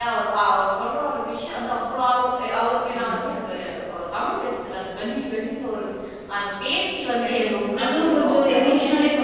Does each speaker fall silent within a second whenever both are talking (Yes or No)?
No